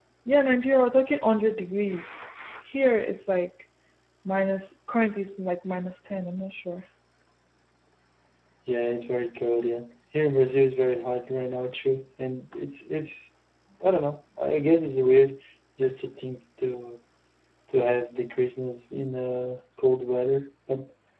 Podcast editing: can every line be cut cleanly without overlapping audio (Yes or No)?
Yes